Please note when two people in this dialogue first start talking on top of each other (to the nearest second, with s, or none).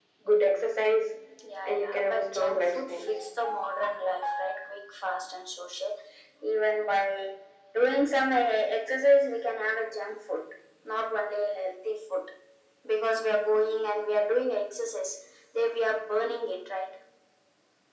2 s